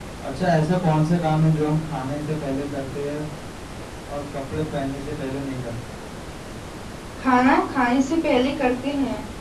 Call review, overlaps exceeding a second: none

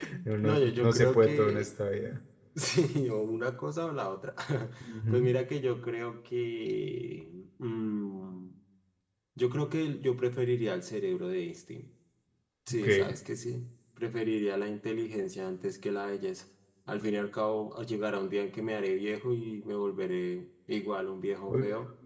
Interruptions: present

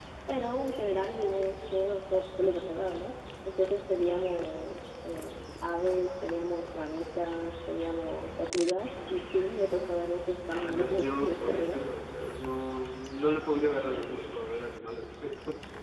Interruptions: present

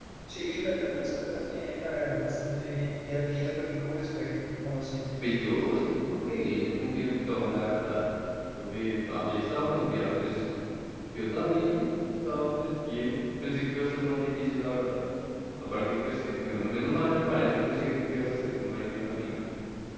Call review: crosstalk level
none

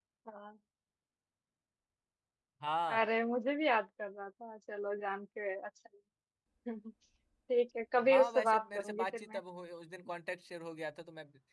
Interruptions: present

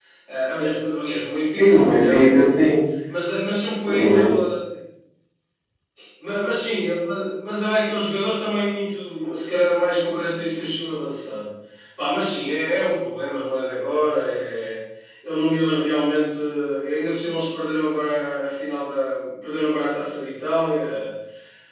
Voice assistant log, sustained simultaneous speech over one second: present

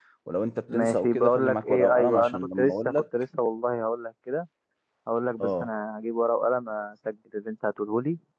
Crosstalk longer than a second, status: present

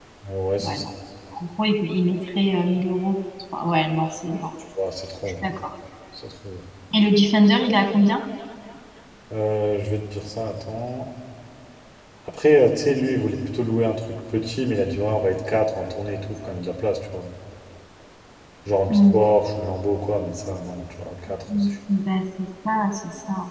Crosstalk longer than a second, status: none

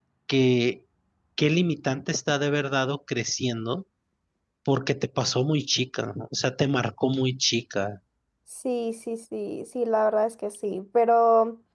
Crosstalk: none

